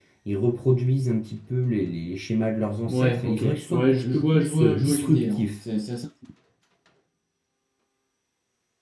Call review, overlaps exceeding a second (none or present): present